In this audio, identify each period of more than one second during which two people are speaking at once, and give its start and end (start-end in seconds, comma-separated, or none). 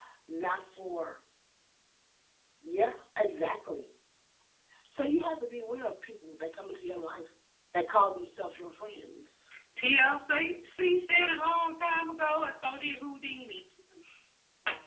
none